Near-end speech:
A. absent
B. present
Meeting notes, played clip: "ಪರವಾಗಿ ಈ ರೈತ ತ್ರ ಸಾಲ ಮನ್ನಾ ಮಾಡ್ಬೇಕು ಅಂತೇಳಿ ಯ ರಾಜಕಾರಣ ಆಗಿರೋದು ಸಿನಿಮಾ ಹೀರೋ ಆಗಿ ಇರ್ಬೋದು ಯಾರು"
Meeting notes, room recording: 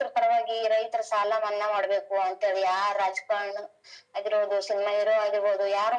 A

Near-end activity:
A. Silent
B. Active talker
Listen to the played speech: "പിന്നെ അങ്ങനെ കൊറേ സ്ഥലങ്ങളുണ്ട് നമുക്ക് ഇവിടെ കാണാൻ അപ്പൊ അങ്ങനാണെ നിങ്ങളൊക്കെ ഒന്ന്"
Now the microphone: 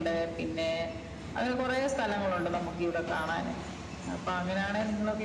A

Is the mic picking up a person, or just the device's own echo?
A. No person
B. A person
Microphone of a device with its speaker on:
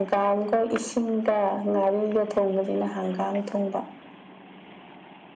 A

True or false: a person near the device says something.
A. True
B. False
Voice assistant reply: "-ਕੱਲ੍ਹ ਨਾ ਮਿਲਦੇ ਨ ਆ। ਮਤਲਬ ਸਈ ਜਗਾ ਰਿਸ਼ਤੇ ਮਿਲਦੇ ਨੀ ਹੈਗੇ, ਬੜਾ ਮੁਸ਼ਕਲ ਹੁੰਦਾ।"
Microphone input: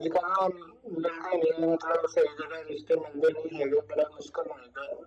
B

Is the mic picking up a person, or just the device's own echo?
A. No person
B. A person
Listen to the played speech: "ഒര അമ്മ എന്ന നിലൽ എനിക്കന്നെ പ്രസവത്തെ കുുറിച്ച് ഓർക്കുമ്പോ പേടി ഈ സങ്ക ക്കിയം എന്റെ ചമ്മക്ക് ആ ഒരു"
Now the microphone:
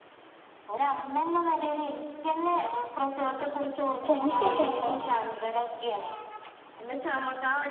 B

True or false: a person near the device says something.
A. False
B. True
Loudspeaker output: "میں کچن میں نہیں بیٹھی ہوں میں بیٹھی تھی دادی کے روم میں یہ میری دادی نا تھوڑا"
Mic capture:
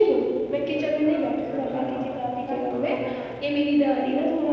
B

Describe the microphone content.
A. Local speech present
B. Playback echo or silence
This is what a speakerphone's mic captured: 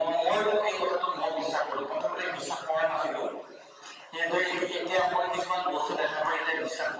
B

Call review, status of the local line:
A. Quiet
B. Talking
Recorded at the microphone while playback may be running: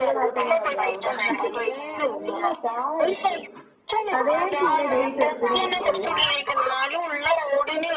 B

